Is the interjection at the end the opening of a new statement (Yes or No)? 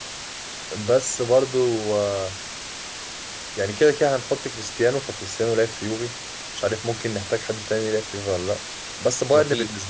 No